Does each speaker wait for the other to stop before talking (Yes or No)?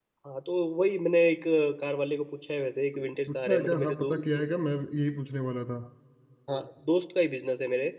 No